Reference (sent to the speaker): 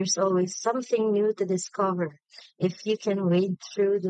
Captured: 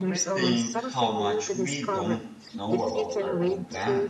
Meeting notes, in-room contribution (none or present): present